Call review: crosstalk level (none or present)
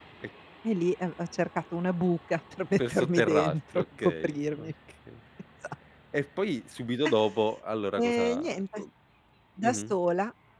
present